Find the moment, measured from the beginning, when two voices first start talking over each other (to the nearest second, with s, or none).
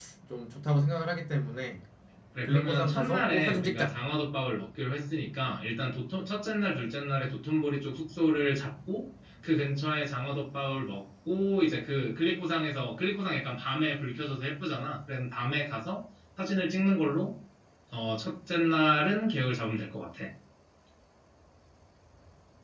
2 s